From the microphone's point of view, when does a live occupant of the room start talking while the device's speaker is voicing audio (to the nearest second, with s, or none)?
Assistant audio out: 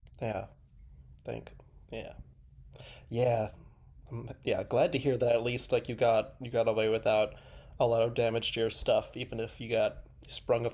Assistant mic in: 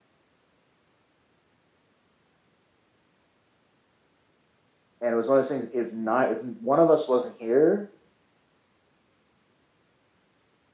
5 s